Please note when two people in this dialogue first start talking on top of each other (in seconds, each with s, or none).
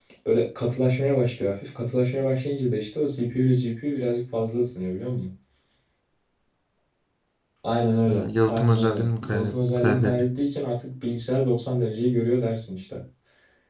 8.1 s